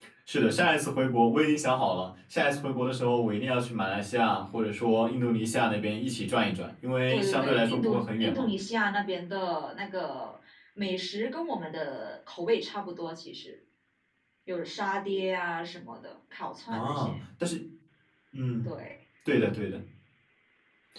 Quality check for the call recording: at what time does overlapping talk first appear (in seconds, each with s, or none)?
7.1 s